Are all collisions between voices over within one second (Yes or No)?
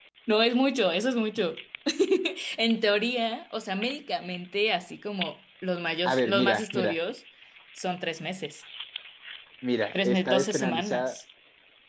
No